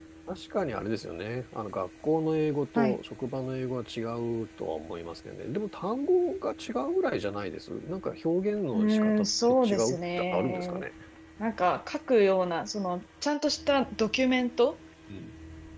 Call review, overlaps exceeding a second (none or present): present